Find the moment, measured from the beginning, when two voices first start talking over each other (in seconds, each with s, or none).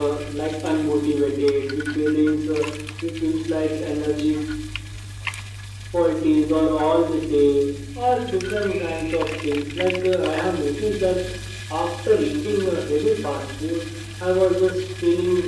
none